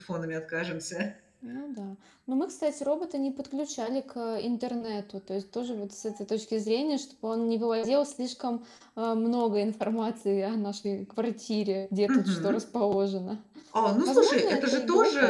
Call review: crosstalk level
present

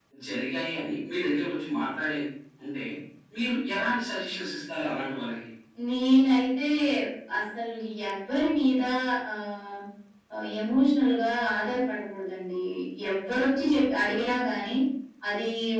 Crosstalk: none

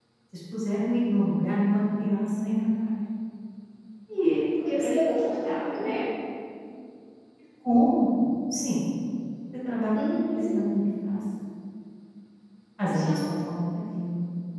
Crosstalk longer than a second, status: present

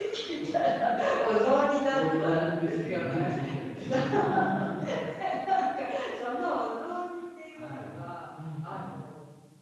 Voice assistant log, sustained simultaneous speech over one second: present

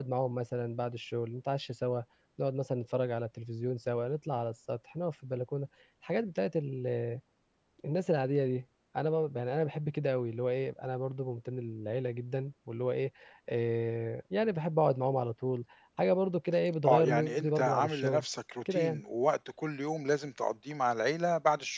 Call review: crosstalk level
present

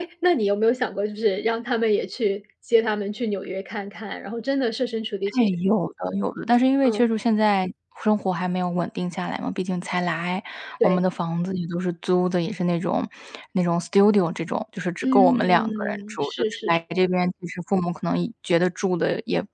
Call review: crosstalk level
present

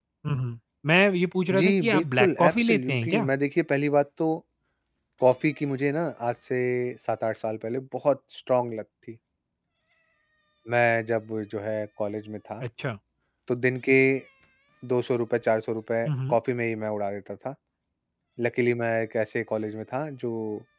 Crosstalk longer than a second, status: present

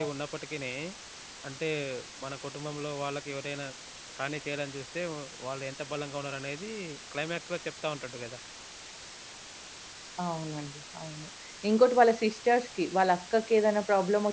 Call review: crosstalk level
none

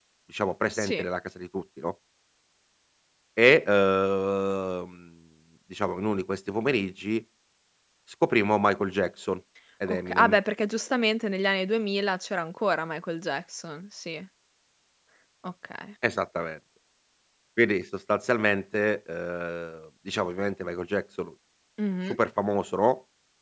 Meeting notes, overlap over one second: none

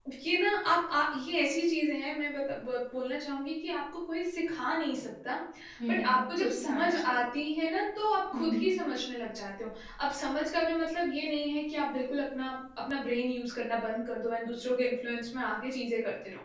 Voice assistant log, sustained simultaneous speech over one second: present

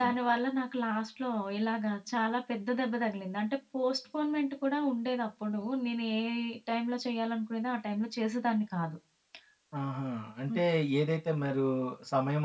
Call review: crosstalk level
none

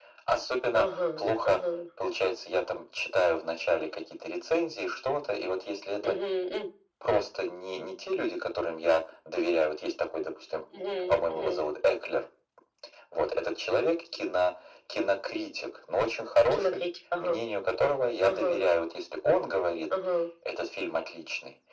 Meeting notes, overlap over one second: none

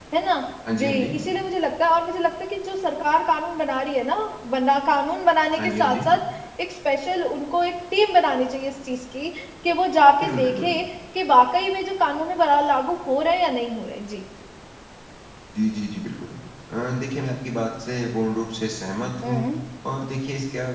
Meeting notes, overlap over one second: none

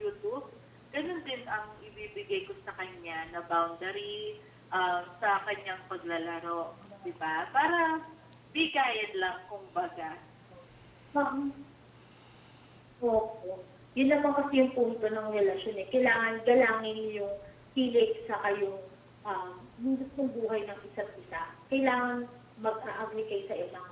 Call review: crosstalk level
none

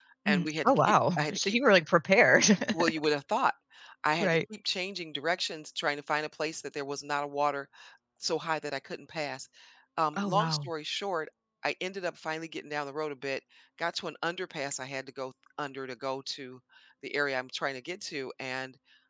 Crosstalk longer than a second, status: present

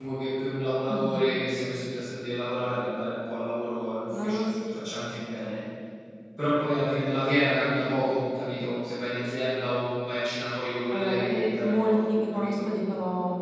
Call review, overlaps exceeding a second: present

